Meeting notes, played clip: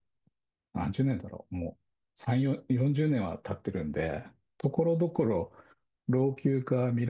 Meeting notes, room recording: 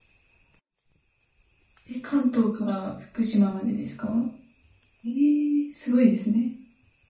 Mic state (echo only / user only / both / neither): user only